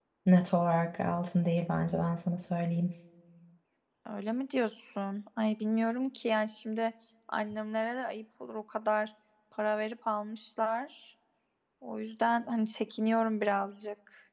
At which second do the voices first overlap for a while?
none

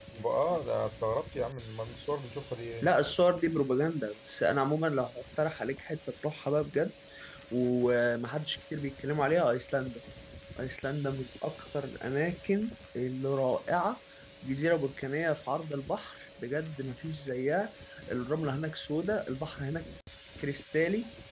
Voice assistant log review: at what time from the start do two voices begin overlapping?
none

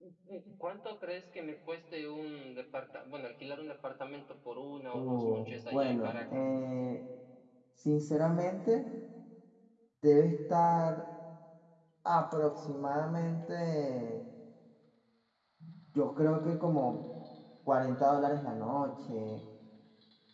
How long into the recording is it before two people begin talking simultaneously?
4.9 s

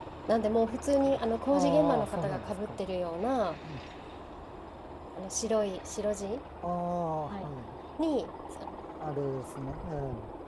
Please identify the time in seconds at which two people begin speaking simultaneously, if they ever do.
1.5 s

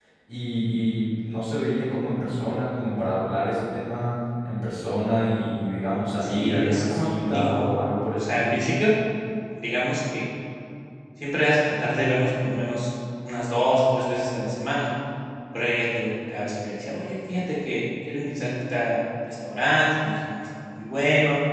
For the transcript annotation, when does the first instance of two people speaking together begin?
6.2 s

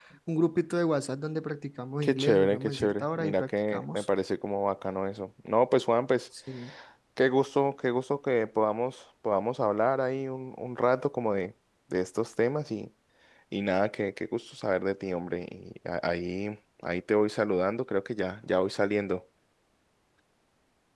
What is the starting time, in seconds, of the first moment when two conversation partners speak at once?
2.0 s

